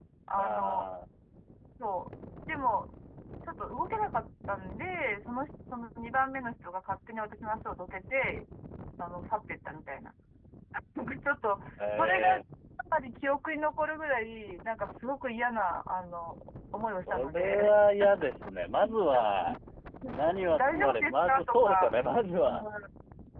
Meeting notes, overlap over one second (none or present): present